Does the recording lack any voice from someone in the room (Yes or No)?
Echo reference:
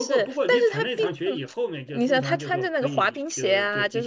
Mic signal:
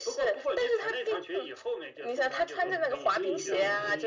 No